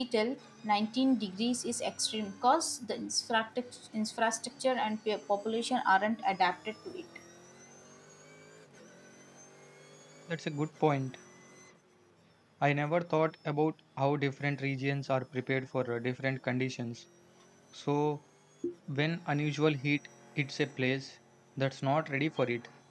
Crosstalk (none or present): none